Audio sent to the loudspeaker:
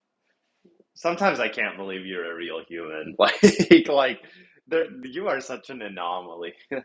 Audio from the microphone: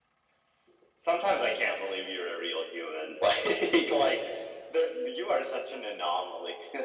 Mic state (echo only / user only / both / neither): echo only